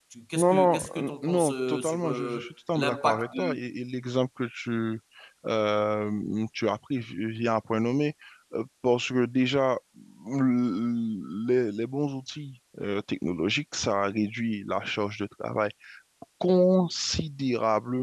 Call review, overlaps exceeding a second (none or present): present